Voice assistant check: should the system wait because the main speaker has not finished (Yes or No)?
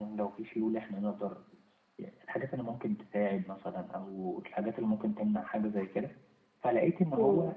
Yes